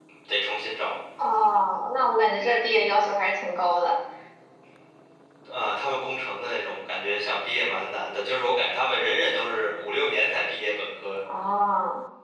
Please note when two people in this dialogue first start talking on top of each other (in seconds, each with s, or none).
none